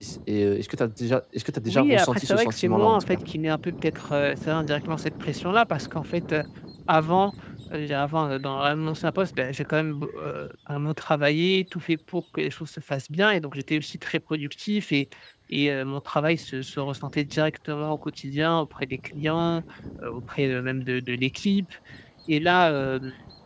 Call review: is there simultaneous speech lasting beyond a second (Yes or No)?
Yes